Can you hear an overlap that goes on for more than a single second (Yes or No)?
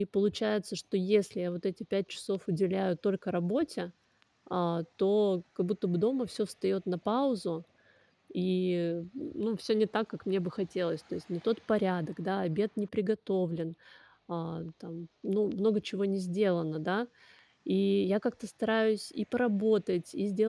No